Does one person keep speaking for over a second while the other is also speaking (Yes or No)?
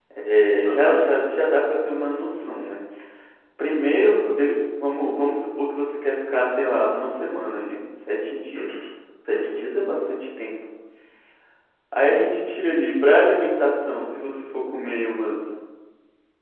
No